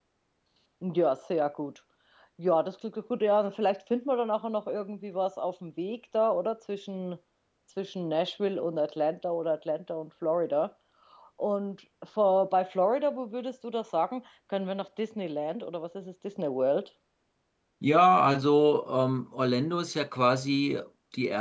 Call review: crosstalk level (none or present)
none